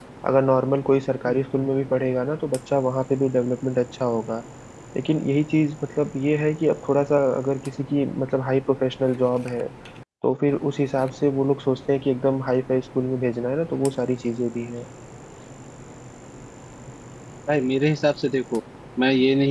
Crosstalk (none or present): none